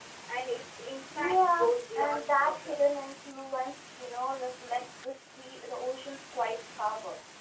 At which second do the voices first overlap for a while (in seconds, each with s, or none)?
1.2 s